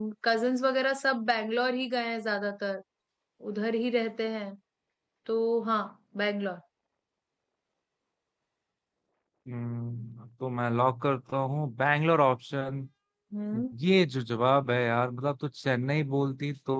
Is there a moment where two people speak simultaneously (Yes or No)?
No